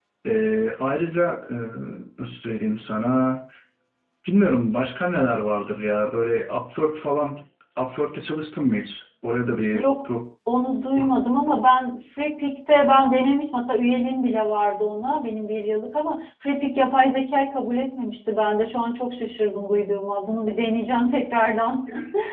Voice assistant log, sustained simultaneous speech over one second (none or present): none